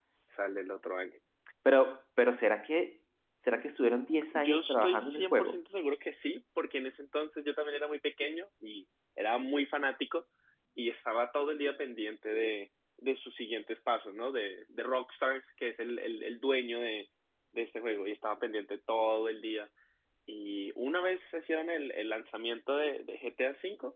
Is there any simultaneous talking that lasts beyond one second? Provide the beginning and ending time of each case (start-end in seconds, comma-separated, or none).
4.3-5.5